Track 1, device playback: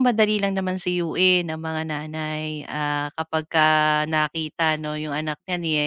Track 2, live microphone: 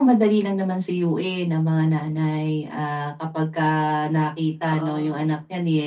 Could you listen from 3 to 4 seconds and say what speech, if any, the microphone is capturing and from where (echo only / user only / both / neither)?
echo only